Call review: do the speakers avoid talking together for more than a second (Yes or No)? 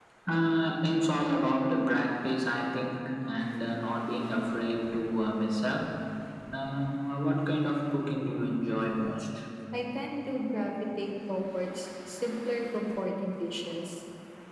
Yes